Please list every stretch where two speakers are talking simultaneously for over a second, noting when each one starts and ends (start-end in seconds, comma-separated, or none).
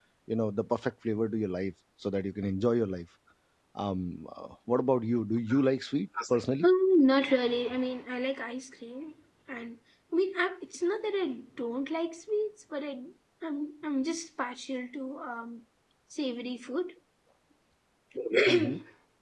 none